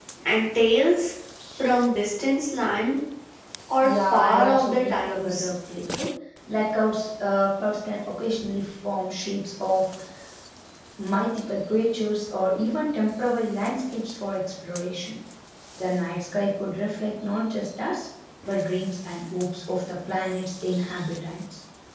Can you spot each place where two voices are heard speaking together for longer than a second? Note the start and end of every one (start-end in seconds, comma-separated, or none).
3.8-5.5